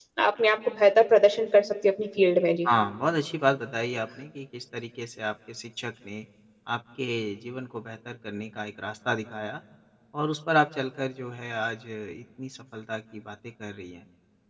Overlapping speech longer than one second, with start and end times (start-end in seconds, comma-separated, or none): none